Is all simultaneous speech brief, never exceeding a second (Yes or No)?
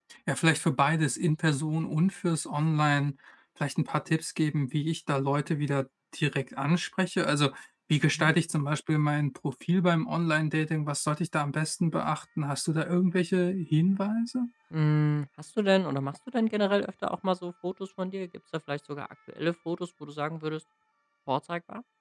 Yes